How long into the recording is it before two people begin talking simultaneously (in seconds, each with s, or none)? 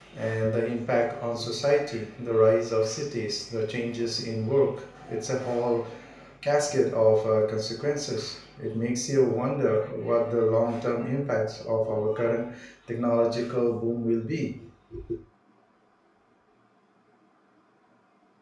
none